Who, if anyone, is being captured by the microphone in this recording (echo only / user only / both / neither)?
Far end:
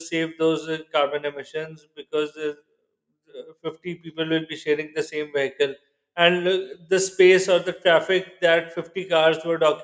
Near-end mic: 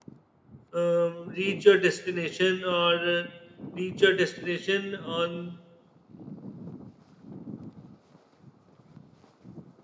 user only